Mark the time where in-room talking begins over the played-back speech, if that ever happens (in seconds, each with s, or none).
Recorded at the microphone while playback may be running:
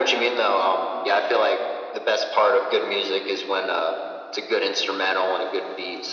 none